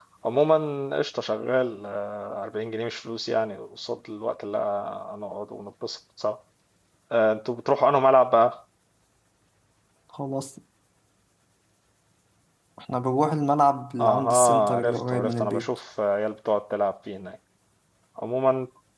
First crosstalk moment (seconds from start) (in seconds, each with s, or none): 14.0 s